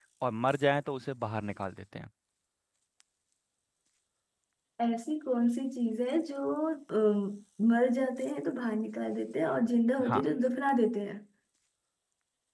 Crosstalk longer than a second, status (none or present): none